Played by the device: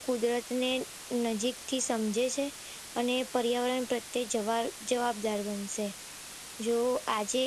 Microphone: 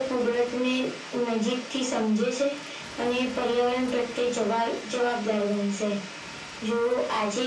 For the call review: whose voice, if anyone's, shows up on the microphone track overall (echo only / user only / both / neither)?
echo only